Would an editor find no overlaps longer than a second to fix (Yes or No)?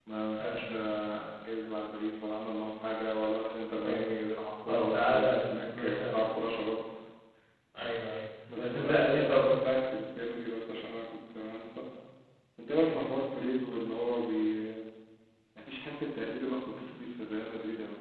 No